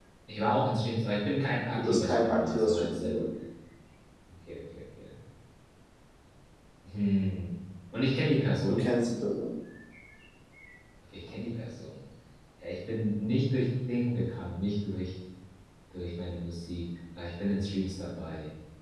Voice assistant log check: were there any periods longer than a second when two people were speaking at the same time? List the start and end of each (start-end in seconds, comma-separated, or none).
1.8-3.2